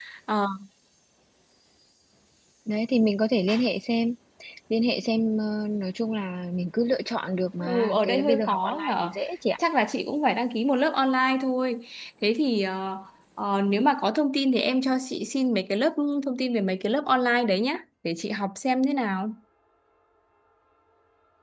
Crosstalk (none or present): present